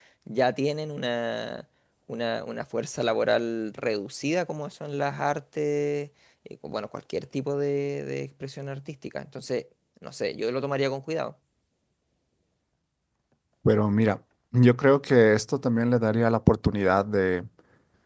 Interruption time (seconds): none

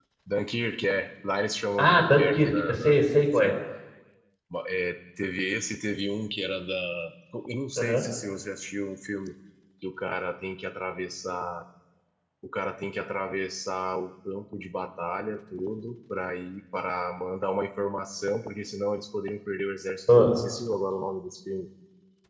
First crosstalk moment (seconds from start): 1.8 s

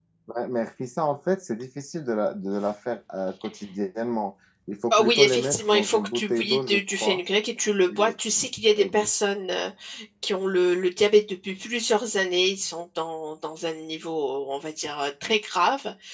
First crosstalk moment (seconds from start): 4.9 s

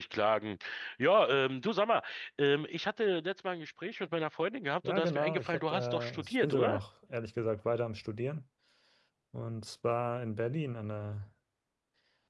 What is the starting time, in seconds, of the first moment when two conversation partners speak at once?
4.8 s

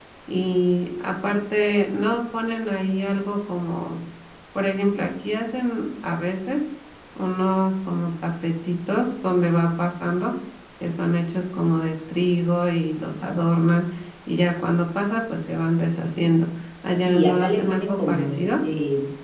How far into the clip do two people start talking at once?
17.1 s

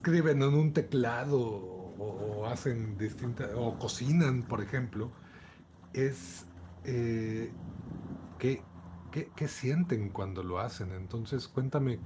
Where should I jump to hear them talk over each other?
none

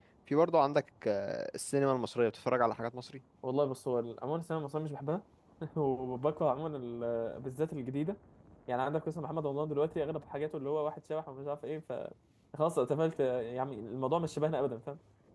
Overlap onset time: none

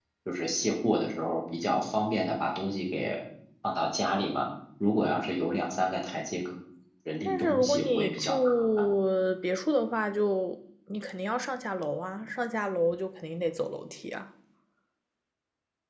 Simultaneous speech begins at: 7.2 s

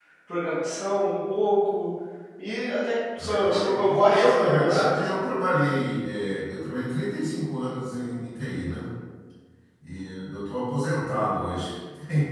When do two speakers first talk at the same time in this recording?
3.2 s

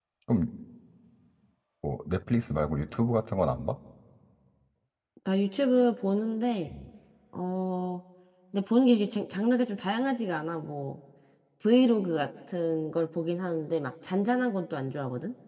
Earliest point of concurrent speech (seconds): none

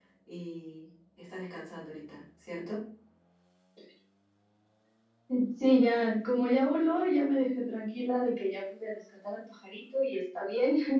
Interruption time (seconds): none

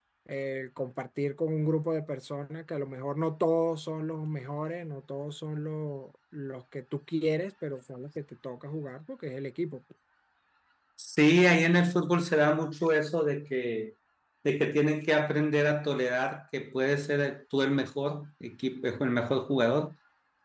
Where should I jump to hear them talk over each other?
none

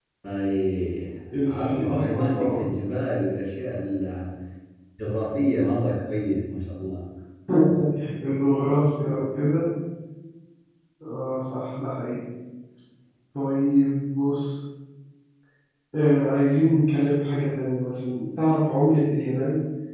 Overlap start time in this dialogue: 1.5 s

